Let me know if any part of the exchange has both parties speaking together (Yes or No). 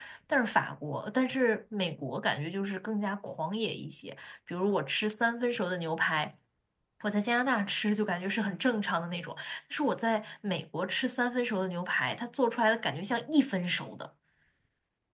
No